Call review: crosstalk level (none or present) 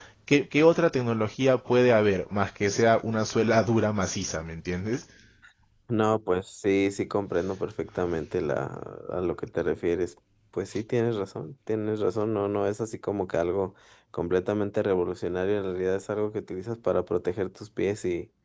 none